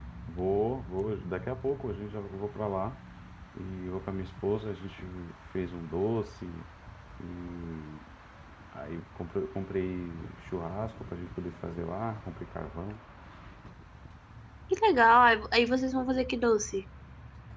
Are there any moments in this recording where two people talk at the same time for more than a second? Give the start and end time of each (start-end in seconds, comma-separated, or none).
none